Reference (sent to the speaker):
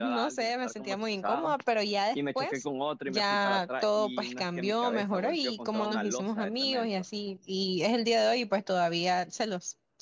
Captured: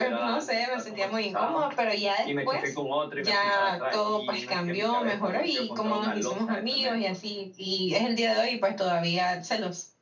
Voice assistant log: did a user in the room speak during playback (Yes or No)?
No